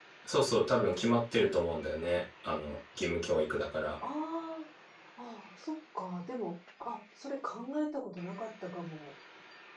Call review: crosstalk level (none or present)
none